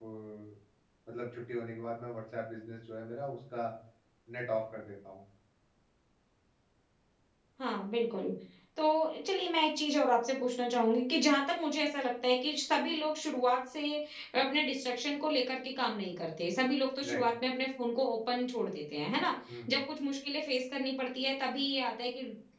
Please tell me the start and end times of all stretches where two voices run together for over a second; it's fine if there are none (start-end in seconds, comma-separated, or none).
none